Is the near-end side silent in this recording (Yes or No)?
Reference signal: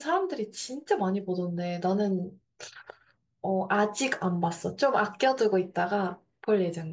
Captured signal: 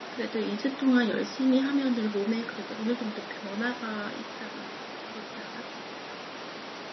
No